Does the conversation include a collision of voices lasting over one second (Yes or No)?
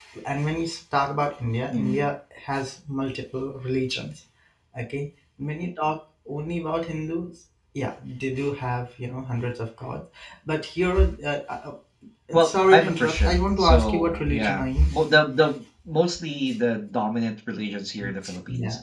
Yes